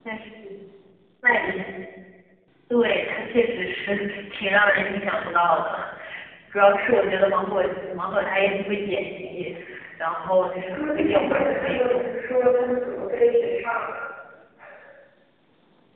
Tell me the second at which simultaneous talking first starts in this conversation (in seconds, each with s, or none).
10.7 s